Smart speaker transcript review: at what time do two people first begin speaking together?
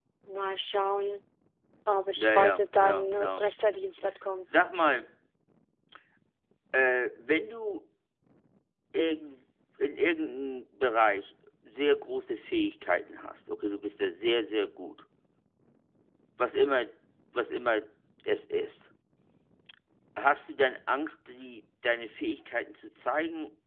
2 s

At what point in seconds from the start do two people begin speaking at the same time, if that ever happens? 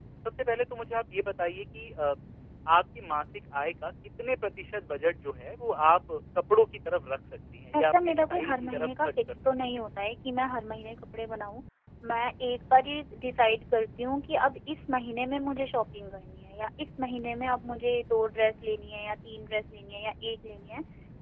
8 s

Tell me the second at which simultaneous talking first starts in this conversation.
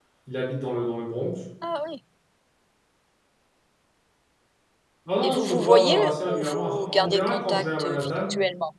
5 s

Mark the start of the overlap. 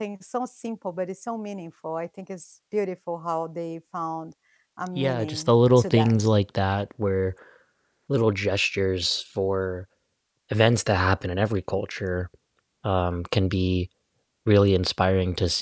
5 s

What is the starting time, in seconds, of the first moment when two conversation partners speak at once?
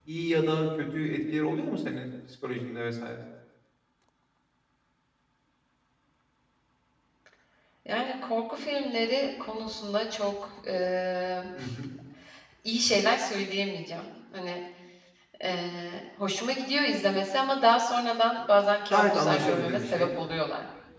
19 s

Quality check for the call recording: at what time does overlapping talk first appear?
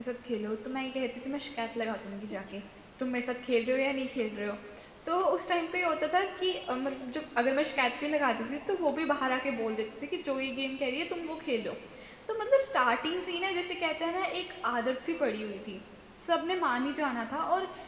none

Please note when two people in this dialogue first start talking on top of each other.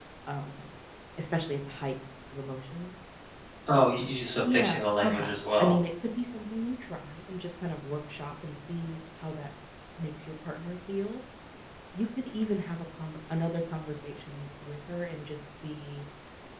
4 s

